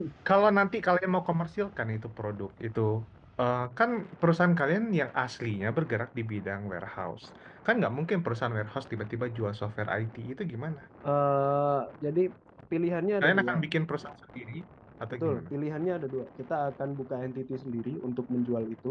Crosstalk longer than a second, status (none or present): none